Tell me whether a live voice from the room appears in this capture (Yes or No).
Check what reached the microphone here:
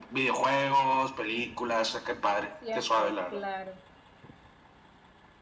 Yes